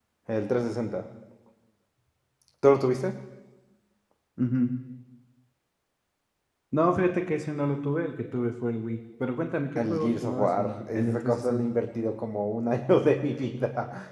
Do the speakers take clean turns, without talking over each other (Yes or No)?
No